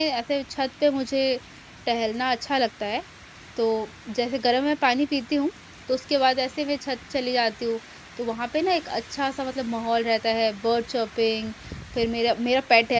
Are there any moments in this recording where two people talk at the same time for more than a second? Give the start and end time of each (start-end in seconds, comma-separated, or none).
none